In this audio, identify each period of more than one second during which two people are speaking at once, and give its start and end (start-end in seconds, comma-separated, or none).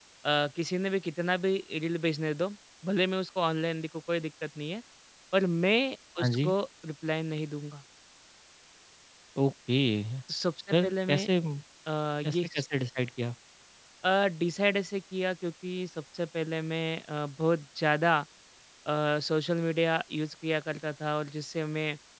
none